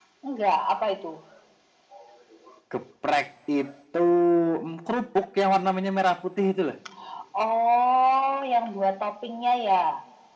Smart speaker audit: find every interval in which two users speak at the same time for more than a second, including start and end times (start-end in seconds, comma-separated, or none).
none